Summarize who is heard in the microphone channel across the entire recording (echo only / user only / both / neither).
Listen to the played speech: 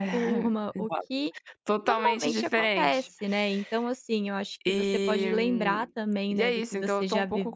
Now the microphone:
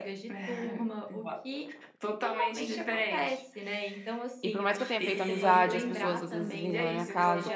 both